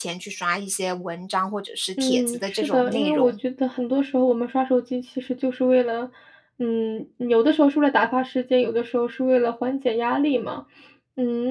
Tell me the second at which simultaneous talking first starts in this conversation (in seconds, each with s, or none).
2.0 s